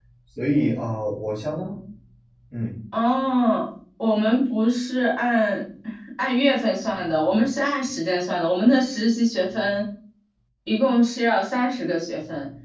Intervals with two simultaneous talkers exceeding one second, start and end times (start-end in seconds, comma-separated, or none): none